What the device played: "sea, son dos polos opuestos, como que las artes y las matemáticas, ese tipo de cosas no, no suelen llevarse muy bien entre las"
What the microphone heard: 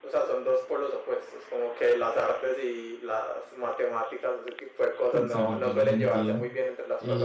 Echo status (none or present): present